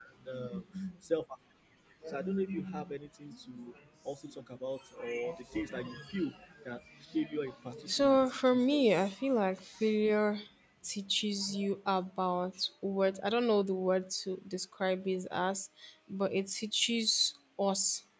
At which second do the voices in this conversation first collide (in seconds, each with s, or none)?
7.9 s